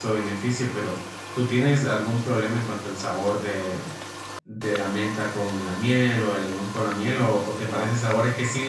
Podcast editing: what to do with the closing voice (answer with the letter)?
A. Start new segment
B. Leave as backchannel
B